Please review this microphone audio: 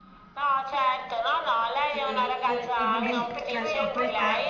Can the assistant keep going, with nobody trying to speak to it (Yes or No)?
No